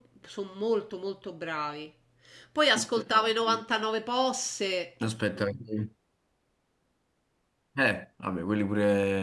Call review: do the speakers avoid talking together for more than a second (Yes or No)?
Yes